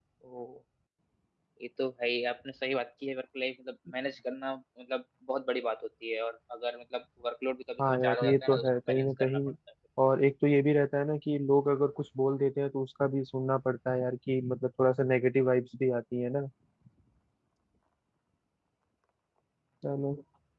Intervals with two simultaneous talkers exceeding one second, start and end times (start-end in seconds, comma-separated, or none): 7.8-9.4